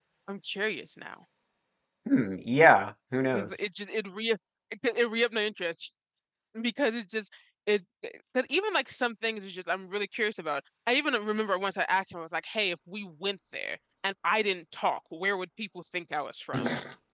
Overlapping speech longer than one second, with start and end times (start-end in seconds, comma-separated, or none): none